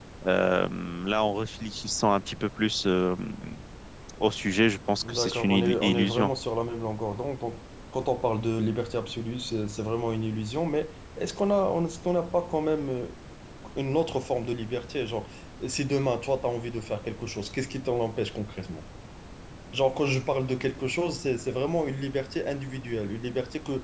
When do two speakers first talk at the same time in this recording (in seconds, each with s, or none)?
5.0 s